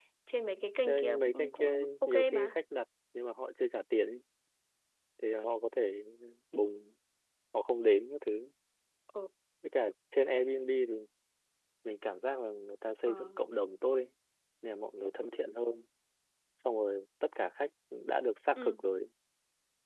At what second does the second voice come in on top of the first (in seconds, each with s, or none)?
0.8 s